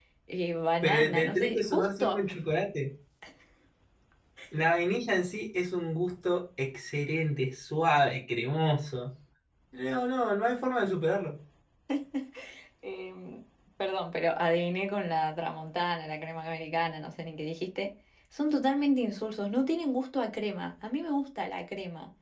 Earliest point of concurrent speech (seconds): 0.8 s

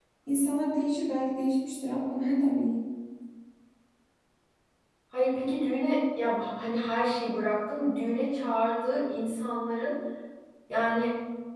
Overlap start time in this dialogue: none

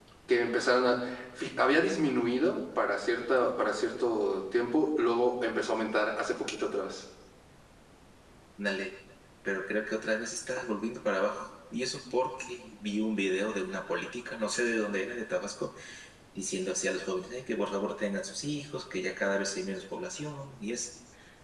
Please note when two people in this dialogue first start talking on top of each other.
none

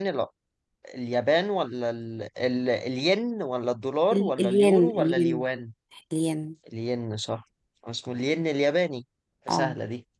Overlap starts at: 4.1 s

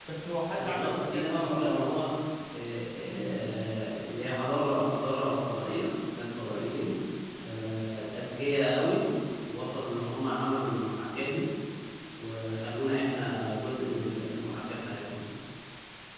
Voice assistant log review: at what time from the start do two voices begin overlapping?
0.5 s

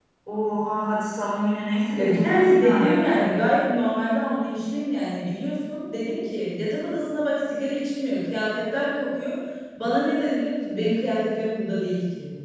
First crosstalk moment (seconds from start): 2.0 s

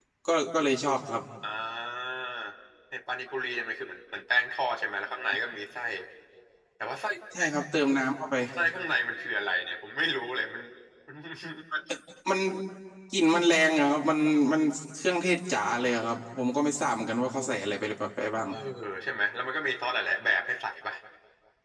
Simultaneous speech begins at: none

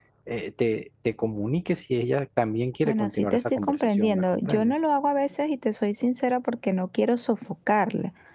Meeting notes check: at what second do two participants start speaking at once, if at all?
2.8 s

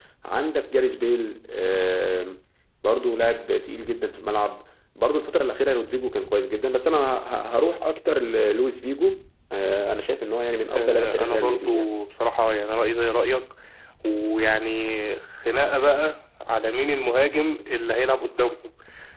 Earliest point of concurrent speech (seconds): 10.7 s

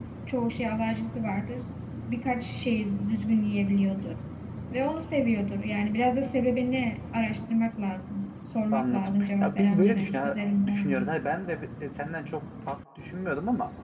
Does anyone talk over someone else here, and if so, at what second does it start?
8.7 s

